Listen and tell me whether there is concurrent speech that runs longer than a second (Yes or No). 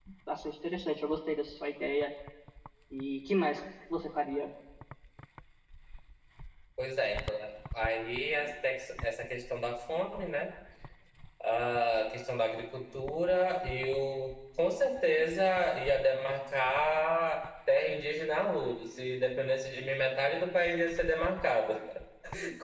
No